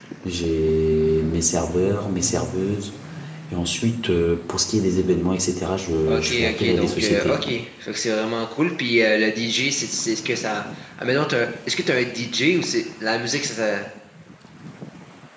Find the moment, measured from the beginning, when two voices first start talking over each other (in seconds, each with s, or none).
6.1 s